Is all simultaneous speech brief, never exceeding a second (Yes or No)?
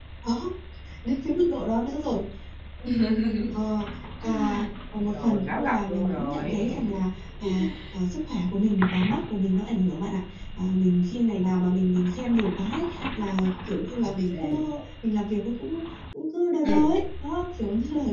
No